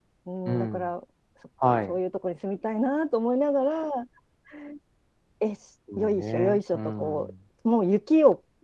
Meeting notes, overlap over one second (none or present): present